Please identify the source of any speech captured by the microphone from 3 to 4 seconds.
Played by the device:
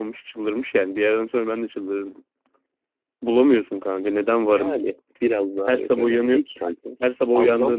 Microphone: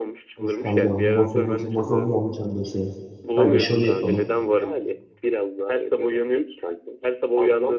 both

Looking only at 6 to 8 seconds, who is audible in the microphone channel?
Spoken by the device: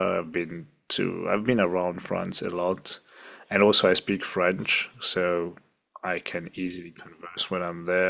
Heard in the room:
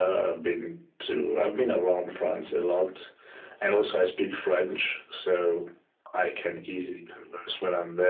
echo only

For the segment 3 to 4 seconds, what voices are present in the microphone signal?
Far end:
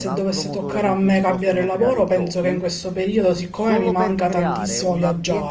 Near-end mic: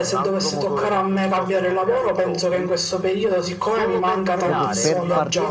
echo only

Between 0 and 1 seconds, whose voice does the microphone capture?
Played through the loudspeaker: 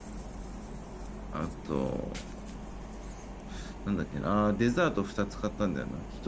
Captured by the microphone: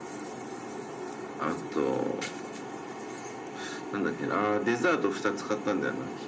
neither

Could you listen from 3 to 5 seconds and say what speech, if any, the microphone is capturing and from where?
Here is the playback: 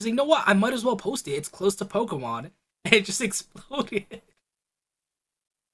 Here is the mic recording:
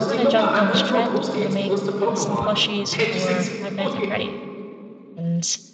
both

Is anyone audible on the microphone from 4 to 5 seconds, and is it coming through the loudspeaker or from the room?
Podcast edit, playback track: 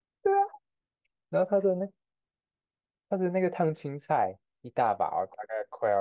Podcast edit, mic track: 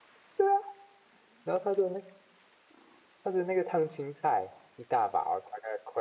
echo only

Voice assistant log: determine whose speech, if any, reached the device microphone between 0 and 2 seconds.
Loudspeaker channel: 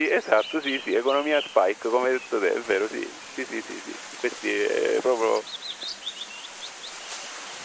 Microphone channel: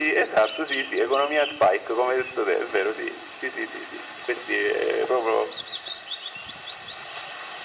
echo only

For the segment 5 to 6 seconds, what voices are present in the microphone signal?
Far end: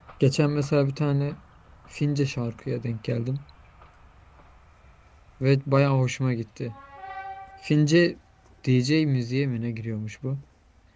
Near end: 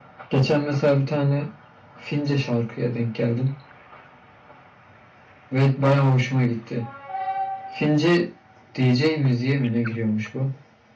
echo only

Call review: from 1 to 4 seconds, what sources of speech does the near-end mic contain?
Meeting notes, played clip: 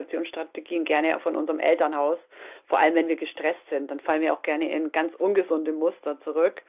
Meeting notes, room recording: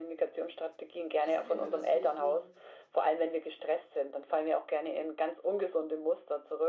both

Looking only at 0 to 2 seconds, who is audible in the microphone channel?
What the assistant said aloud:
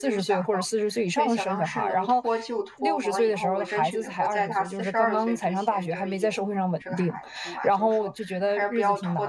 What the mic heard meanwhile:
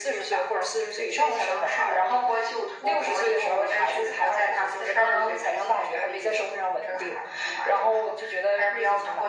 echo only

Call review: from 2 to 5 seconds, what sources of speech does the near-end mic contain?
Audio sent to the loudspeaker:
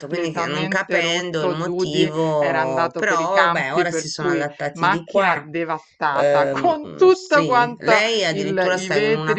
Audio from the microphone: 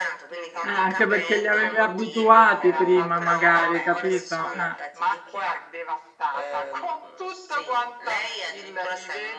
both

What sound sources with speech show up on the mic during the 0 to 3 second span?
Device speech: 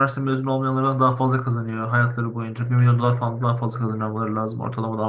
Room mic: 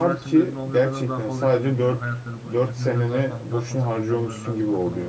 both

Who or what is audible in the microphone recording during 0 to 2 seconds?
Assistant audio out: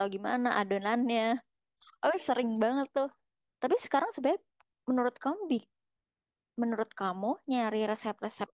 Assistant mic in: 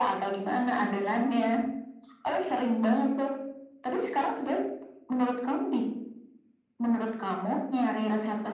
echo only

